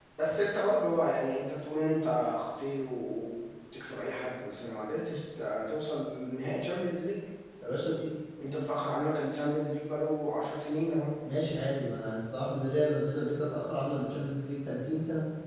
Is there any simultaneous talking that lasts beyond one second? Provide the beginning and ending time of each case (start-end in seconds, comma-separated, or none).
none